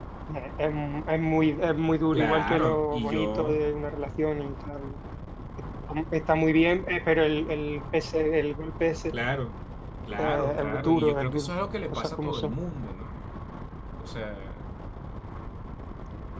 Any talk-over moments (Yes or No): Yes